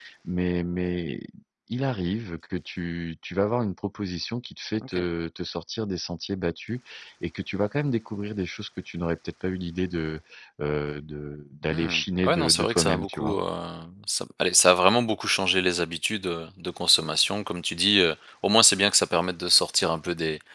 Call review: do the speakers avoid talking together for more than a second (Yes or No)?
No